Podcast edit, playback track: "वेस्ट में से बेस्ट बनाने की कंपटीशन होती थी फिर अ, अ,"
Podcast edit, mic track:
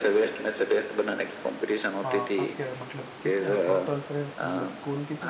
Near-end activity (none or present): present